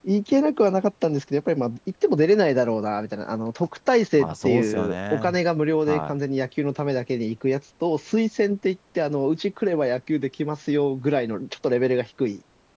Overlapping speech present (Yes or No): Yes